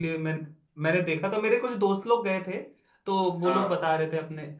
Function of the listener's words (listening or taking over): listening